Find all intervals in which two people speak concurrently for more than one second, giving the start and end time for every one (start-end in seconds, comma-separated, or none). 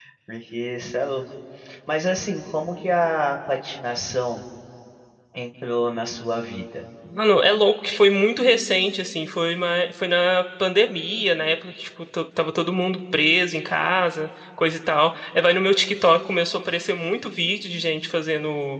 none